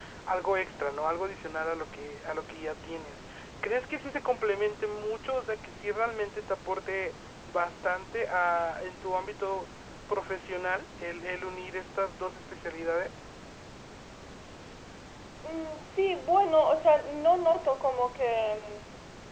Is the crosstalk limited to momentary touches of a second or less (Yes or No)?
Yes